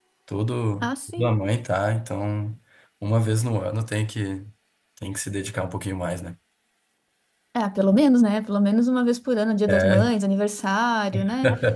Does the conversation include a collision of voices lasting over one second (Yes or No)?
No